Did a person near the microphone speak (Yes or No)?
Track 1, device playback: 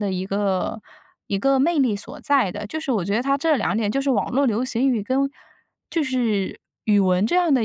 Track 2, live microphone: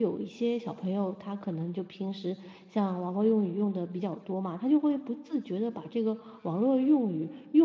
Yes